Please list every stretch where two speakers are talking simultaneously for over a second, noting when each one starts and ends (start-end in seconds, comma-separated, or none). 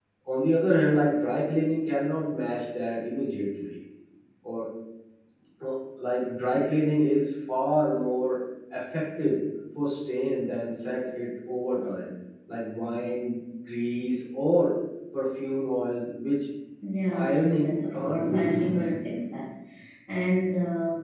17.1-18.6